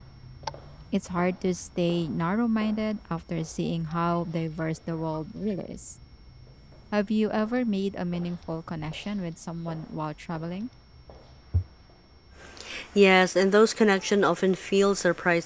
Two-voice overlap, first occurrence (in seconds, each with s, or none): none